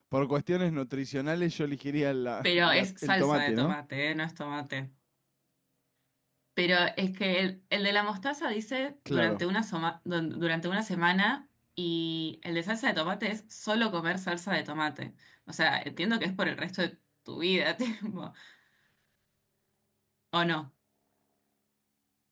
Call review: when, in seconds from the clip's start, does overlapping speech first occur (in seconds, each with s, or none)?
2.4 s